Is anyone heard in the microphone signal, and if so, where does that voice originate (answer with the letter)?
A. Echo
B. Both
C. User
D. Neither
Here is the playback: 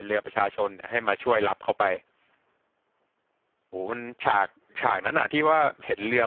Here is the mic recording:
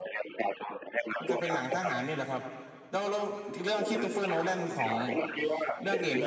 B